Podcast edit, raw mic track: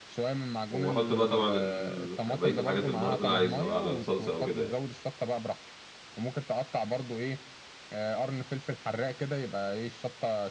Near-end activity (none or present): present